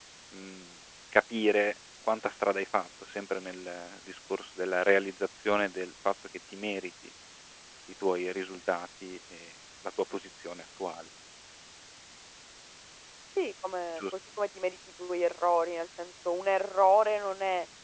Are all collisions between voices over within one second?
Yes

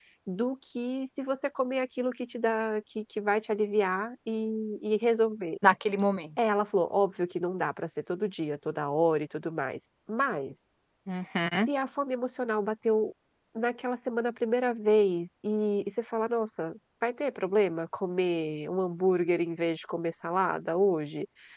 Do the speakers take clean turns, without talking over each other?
Yes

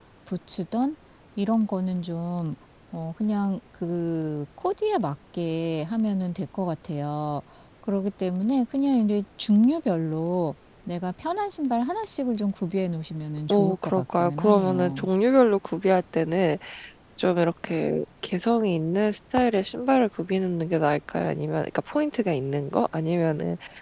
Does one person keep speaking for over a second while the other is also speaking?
Yes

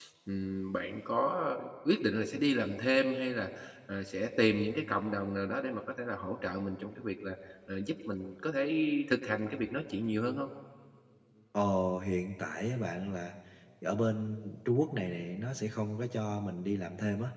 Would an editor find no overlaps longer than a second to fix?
Yes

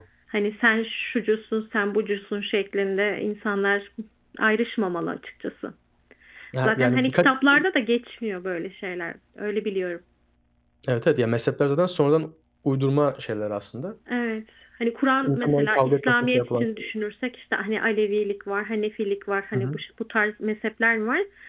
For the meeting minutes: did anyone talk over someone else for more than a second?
Yes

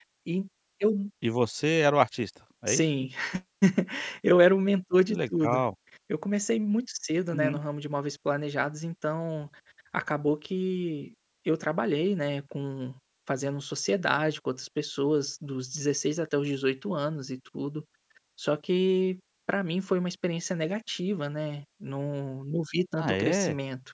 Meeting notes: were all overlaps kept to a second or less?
Yes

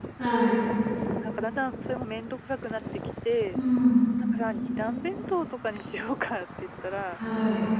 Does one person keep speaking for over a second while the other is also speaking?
No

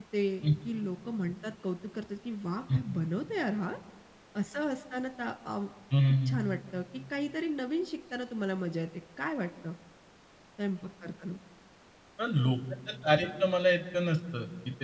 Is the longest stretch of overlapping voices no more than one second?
Yes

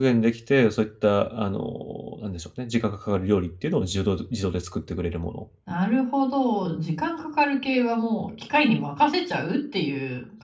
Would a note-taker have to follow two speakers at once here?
No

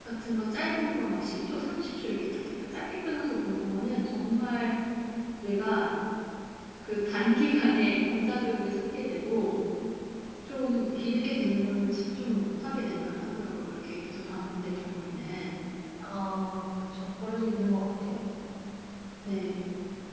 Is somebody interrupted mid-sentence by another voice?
No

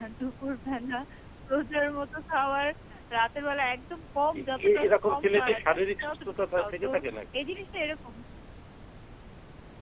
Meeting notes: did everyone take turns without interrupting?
No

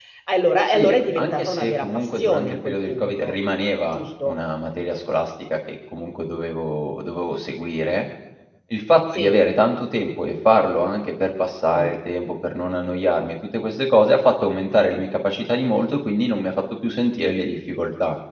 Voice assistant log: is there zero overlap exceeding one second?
No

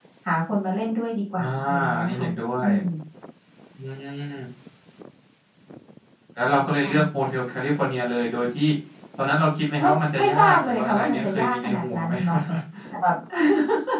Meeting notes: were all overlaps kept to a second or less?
No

